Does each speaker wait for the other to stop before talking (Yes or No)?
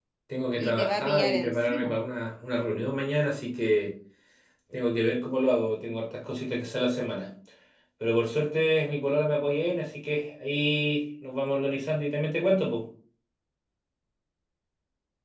No